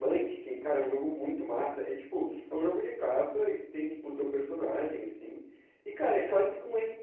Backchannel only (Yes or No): Yes